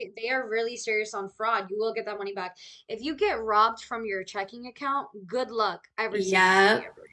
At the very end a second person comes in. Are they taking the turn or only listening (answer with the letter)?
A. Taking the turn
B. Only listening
A